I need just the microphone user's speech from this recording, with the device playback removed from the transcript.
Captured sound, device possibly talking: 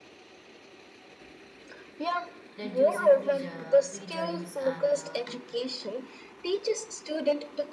reducing preju- prejudice and, uh,

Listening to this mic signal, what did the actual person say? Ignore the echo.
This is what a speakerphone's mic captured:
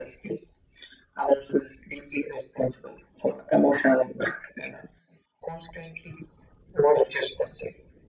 none

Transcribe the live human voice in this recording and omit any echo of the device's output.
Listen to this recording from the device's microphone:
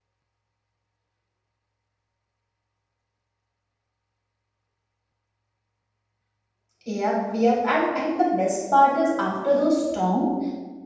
Yep, yep. And and the best part is after those storm,

